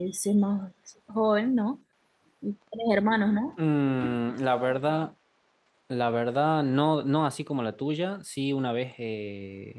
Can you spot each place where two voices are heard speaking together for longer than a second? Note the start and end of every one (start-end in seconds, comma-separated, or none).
none